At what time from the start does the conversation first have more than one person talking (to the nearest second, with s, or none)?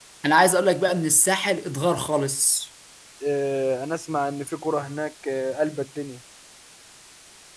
none